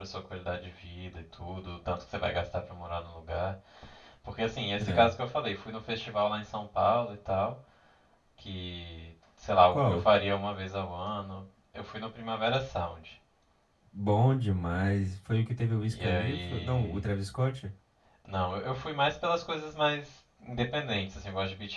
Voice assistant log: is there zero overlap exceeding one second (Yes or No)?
No